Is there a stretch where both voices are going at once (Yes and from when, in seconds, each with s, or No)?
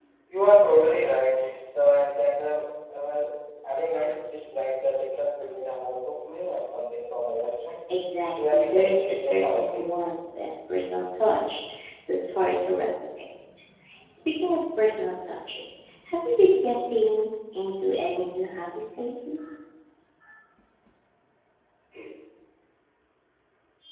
Yes, from 8.5 s